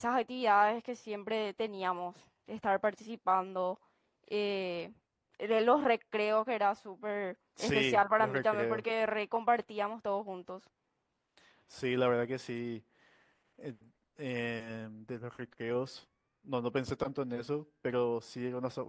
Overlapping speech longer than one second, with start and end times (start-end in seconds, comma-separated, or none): 7.6-8.8